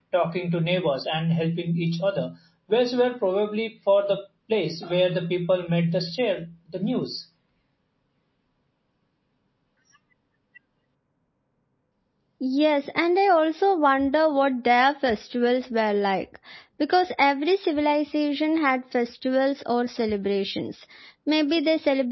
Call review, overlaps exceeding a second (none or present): none